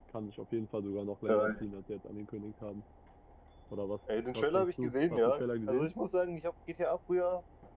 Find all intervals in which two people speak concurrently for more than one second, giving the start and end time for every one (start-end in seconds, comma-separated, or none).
4.3-5.9